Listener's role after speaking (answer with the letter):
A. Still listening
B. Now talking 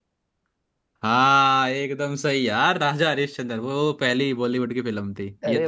B